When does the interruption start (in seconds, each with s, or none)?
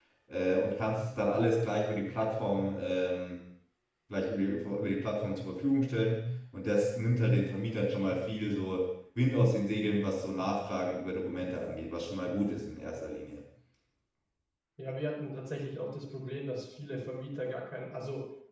none